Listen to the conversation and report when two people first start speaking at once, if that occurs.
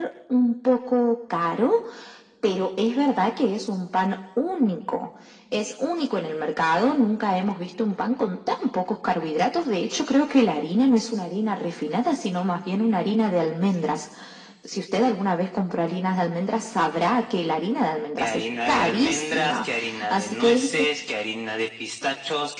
18.2 s

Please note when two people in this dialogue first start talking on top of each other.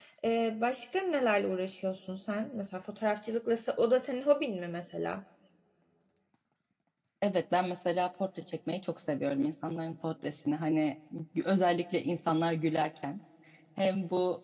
none

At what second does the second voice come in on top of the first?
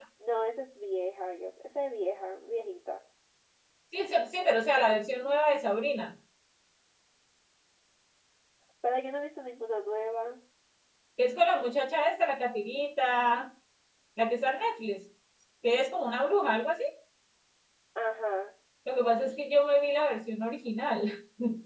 none

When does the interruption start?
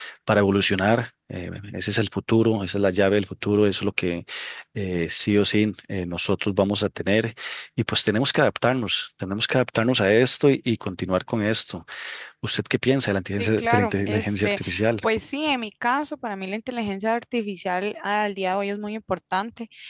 13.4 s

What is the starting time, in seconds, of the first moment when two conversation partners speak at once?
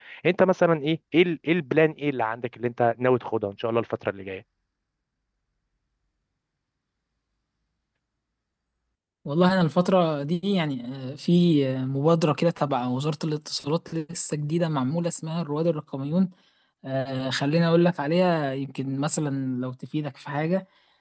none

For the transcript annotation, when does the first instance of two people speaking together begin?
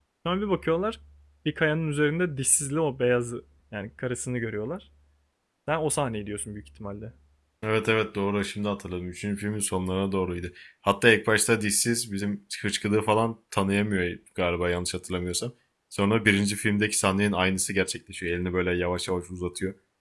none

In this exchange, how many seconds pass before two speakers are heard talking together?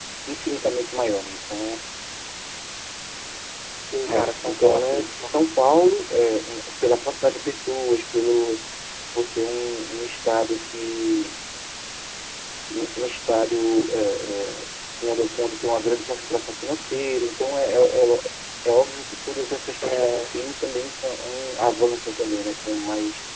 4.1 s

